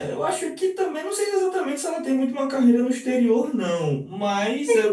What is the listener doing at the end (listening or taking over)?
listening